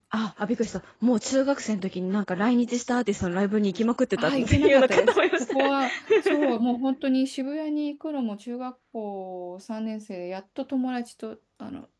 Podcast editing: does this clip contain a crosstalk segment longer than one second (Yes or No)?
Yes